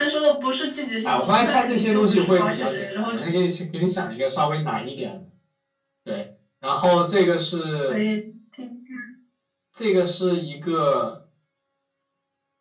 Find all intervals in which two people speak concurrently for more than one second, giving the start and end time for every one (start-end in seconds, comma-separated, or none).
1.0-3.2